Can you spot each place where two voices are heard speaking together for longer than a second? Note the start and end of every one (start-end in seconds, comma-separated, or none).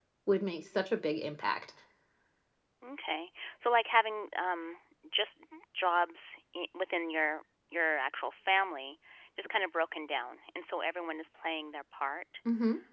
none